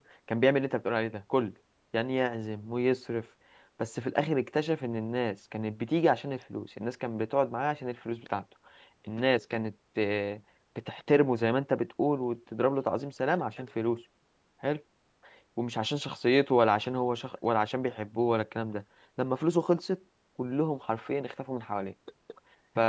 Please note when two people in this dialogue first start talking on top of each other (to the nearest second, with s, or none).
none